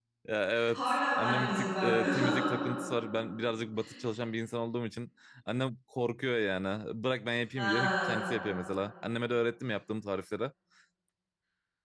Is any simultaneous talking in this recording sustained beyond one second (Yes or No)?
Yes